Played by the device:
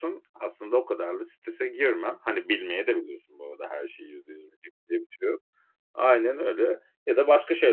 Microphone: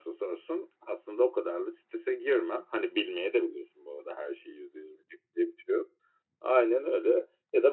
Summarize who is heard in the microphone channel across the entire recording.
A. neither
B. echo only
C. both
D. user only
B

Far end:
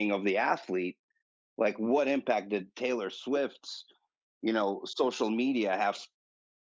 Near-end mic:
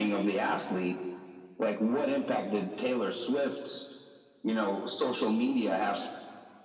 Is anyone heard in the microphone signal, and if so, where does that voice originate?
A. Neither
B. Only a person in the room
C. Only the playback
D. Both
C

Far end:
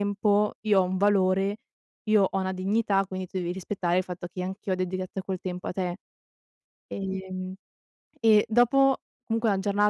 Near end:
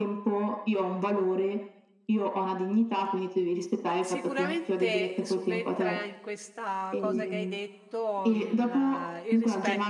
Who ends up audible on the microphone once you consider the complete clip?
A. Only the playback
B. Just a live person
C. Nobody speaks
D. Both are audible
D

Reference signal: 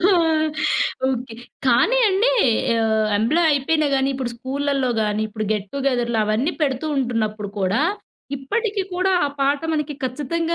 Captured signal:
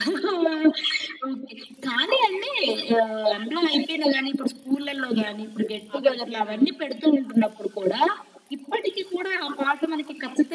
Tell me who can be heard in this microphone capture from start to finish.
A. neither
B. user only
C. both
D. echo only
C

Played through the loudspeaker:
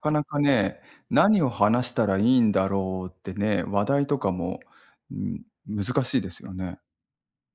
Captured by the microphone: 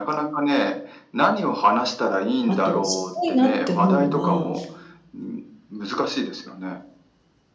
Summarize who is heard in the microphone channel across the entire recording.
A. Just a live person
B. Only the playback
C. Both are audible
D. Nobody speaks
C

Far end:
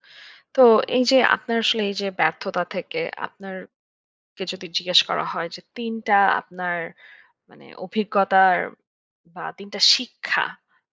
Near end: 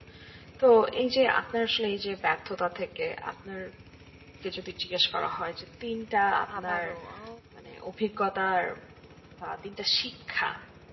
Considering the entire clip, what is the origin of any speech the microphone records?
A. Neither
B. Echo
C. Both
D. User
C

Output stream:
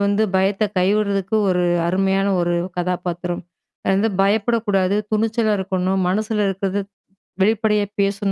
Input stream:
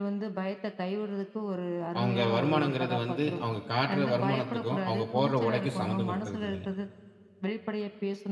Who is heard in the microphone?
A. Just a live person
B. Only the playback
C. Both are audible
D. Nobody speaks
C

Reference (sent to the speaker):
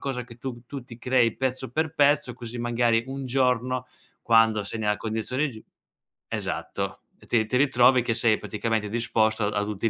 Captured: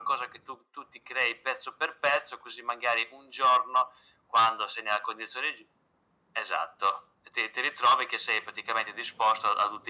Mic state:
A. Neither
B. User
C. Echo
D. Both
C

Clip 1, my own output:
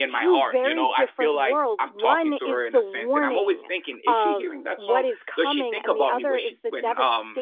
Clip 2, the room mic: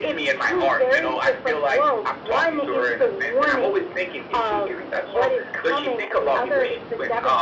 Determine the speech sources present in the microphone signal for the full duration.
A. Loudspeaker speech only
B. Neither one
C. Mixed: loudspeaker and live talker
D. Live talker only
A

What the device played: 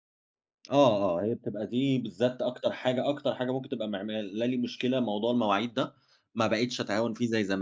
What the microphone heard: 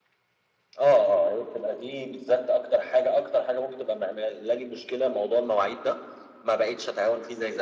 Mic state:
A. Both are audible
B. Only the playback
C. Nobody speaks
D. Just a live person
B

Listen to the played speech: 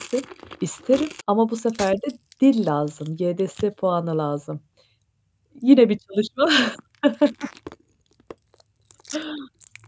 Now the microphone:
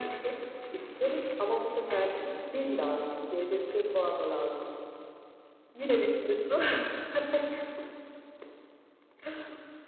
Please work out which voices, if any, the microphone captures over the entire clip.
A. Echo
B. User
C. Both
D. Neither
A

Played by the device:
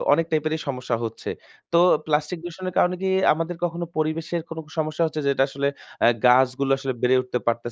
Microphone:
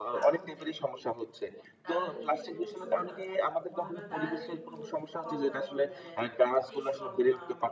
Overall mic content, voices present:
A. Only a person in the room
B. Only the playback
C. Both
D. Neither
C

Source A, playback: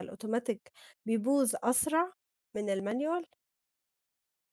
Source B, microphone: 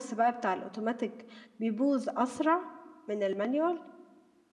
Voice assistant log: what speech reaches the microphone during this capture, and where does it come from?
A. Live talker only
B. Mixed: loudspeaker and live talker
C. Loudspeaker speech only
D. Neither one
C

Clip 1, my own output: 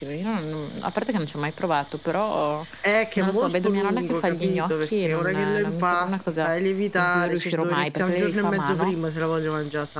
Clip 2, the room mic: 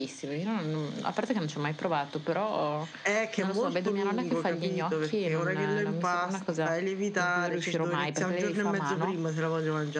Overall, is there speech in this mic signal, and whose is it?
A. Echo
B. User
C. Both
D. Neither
A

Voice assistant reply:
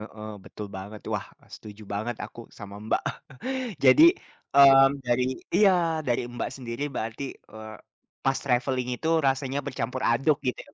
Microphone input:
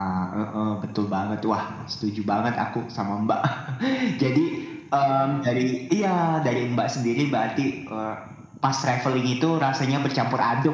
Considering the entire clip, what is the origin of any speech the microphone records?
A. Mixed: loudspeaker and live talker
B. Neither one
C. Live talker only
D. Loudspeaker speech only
A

